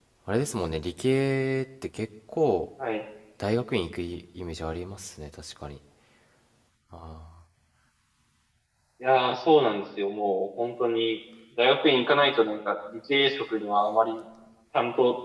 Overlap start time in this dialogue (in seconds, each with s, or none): none